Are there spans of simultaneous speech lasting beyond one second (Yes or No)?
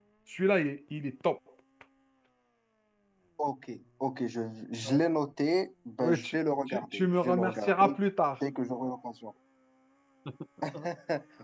Yes